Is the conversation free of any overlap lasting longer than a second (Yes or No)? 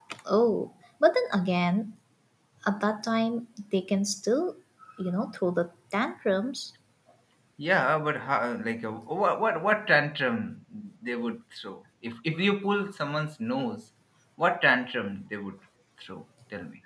Yes